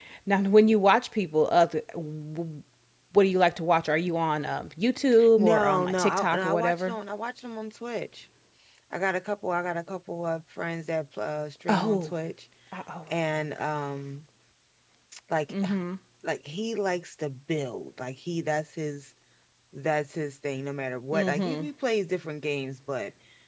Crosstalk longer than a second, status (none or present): present